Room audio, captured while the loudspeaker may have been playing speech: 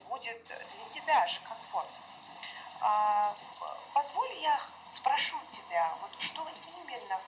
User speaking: No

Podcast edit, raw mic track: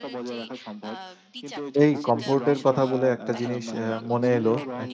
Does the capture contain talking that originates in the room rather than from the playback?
Yes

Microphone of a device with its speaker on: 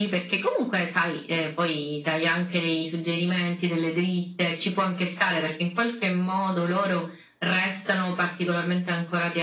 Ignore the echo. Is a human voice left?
No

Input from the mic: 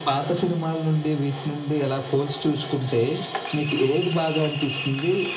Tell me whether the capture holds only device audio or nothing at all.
Yes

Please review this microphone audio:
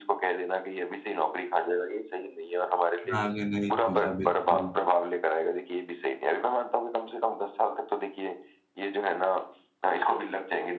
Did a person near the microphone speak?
Yes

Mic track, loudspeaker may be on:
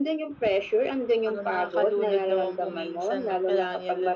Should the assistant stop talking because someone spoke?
No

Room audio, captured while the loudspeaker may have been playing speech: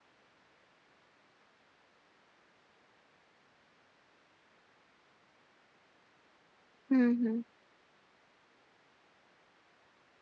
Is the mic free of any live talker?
No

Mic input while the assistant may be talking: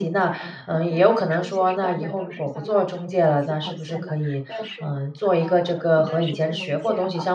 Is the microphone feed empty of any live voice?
No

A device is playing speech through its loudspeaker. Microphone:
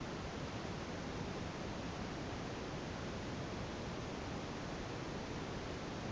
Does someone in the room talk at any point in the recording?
No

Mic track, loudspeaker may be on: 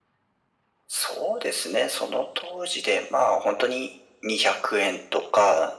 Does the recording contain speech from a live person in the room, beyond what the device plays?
No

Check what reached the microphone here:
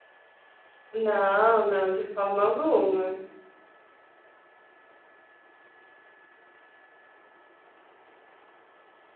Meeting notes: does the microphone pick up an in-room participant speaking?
Yes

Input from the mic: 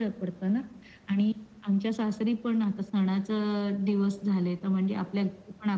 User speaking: No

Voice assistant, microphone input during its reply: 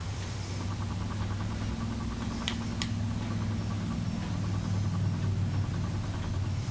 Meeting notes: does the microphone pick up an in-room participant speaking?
No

